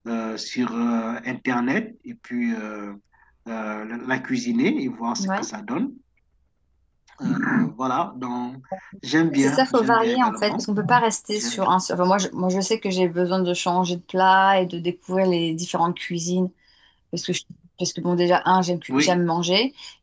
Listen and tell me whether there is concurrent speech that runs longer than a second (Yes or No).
Yes